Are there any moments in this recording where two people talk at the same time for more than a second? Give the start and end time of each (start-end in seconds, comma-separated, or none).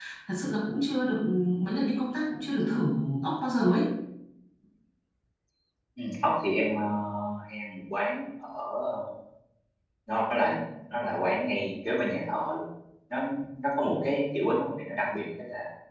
none